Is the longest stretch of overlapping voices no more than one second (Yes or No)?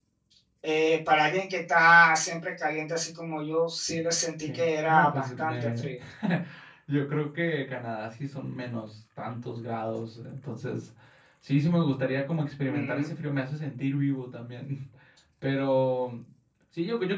No